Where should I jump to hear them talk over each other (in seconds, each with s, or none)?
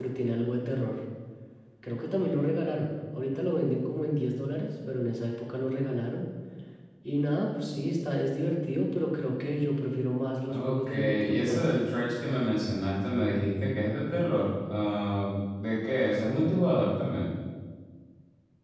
10.5 s